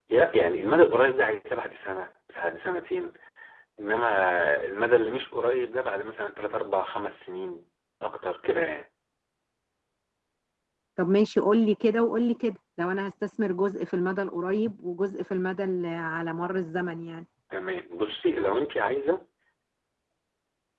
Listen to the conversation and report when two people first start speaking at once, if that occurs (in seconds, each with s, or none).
none